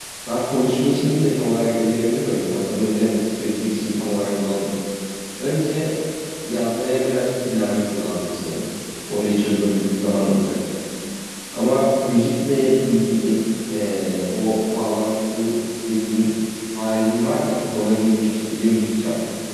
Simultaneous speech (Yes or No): No